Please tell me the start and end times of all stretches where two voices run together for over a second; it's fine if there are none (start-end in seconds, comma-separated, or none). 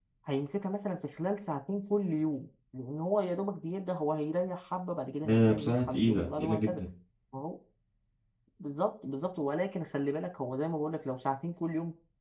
5.2-6.8